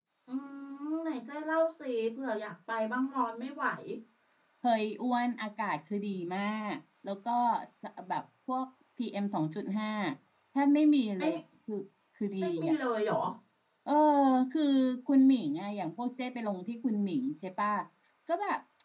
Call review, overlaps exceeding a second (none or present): none